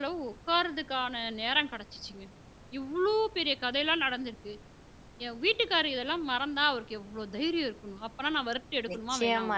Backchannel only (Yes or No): No